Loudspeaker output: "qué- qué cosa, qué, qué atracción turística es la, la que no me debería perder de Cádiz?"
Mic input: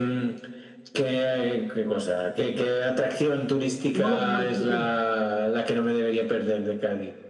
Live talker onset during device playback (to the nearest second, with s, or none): 4 s